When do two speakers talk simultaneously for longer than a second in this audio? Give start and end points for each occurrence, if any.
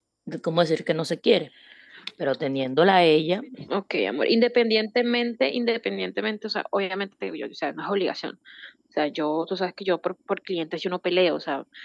none

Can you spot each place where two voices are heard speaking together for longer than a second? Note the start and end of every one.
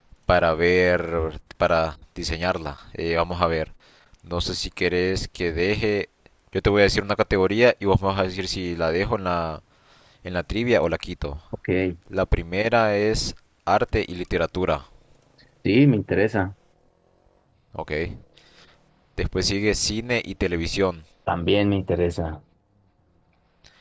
none

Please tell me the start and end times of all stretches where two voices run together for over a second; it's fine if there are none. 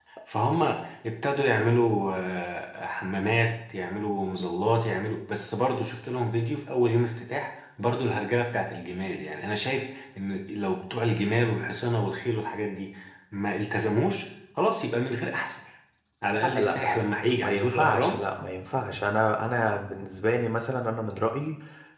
16.4-18.2

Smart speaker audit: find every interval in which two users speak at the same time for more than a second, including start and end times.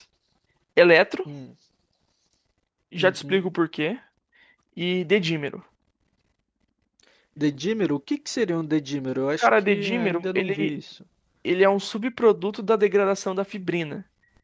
9.4-10.7

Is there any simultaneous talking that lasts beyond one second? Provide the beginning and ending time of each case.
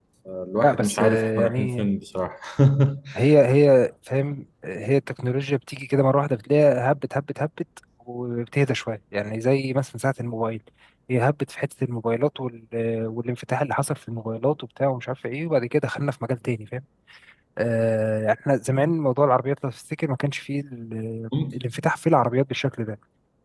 0.6-1.9

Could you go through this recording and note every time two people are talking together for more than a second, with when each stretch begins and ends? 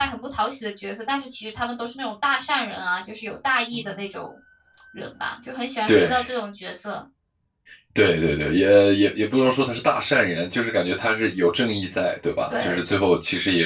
none

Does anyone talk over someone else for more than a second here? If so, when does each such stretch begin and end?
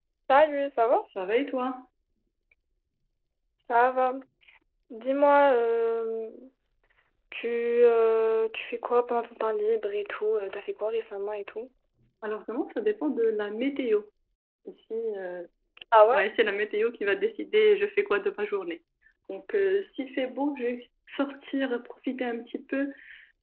none

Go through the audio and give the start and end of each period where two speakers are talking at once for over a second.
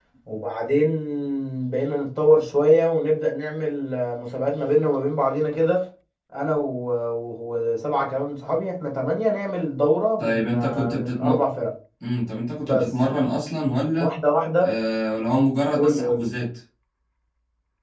10.2-11.4

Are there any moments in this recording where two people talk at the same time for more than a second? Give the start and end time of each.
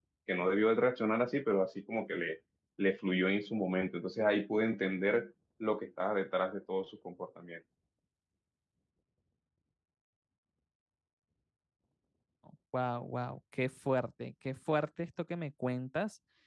none

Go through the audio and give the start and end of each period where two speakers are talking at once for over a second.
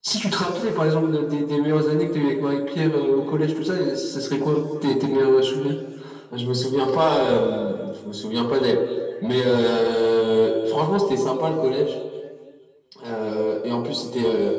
none

